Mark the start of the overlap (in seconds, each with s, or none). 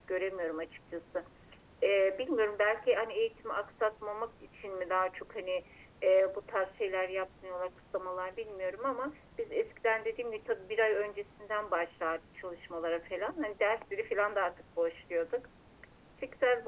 none